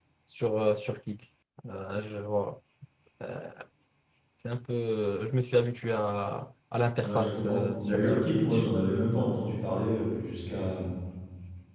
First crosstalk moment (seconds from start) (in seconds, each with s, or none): 7.0 s